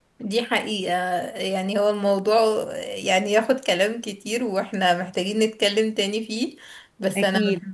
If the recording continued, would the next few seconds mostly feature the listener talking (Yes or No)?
No